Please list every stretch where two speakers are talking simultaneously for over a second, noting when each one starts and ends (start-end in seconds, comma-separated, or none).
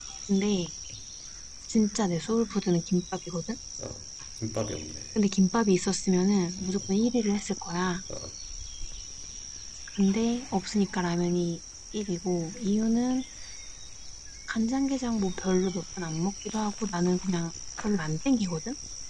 none